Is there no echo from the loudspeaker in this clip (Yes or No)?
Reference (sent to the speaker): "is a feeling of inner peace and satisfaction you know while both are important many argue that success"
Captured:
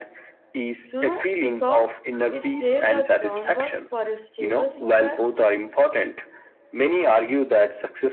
No